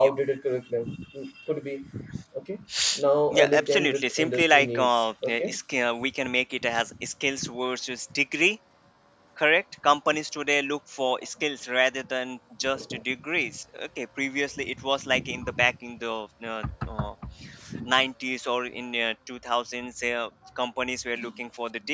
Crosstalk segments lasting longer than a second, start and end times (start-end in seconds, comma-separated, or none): 3.3-5.6